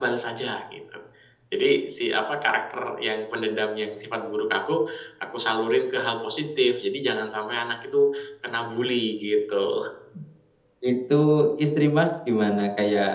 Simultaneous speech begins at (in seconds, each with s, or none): none